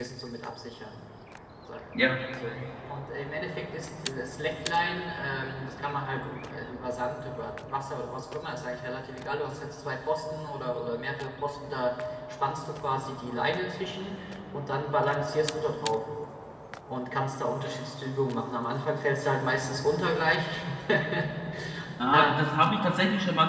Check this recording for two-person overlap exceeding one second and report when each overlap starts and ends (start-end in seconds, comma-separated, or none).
none